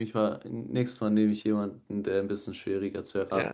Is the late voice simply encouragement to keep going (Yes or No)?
No